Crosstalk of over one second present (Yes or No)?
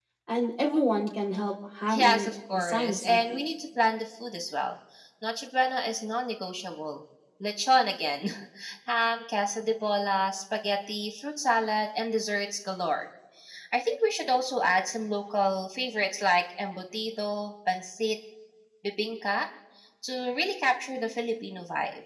Yes